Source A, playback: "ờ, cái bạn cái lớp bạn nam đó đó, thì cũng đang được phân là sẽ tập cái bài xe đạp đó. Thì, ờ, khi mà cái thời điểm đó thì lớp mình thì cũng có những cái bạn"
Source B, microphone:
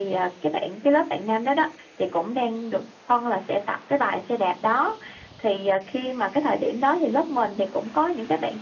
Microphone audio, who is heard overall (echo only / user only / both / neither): echo only